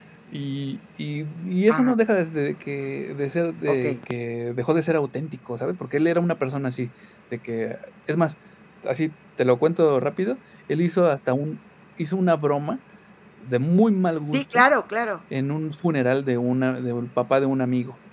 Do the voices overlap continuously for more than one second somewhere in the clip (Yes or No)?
No